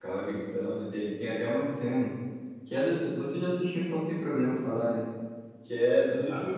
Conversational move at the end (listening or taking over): listening